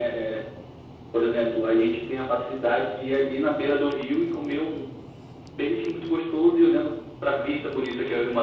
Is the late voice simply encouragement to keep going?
No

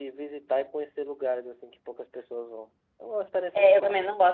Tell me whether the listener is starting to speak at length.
Yes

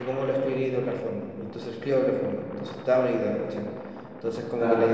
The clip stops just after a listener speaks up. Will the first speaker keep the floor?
Yes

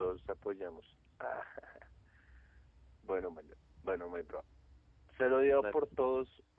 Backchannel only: Yes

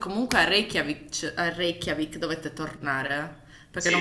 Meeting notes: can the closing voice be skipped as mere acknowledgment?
Yes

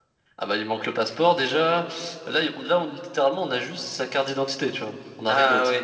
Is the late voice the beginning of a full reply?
Yes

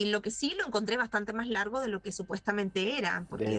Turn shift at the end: No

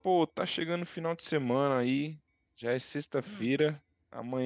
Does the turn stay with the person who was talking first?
Yes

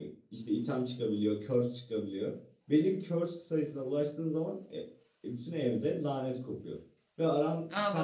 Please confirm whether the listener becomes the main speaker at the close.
No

